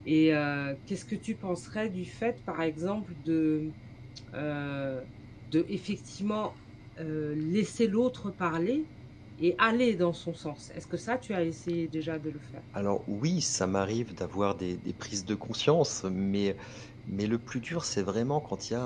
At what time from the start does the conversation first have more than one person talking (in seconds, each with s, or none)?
none